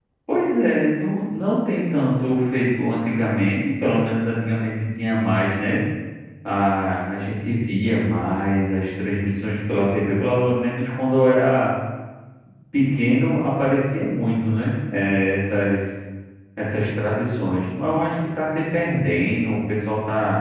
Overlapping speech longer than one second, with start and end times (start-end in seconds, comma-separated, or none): none